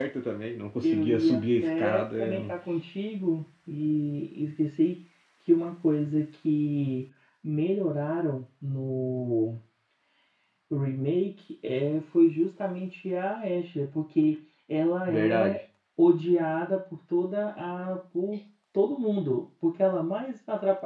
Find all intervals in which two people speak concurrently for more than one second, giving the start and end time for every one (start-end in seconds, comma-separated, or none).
0.8-2.5